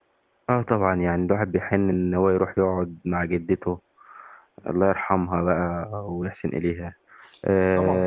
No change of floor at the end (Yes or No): No